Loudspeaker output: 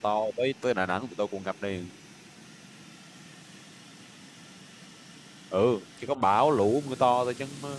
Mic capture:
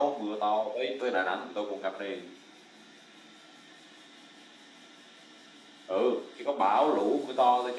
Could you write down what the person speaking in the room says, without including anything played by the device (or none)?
none